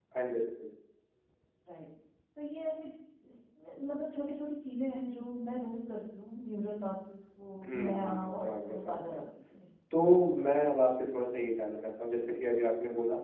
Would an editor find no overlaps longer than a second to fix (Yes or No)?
No